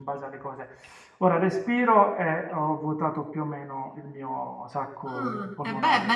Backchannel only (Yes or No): No